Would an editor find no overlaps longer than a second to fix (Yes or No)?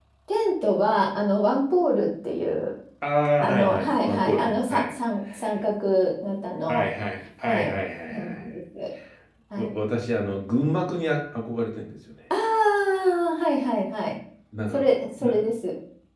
No